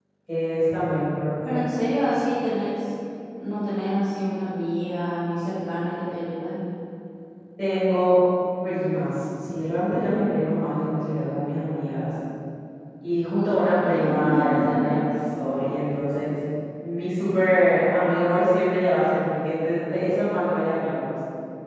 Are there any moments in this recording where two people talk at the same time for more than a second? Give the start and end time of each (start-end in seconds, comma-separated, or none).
13.8-15.0